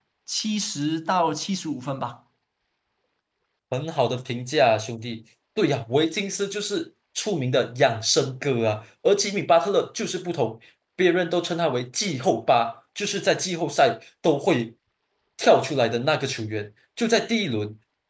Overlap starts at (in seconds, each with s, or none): none